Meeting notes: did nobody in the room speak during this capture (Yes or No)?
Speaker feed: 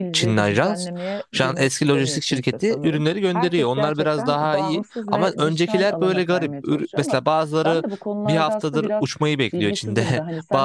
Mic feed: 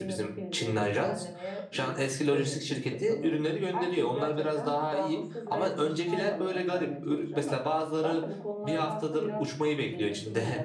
Yes